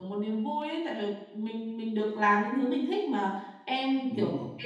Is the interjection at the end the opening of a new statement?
No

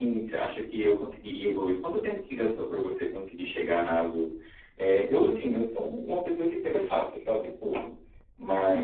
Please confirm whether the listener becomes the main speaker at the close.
No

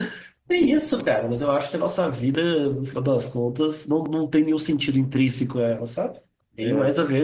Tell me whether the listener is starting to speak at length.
No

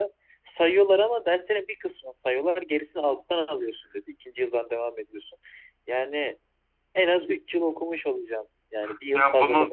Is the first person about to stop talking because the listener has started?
Yes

